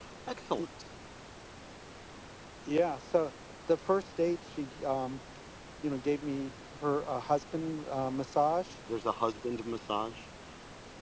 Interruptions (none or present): none